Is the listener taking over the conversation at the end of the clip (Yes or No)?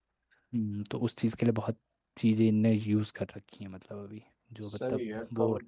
Yes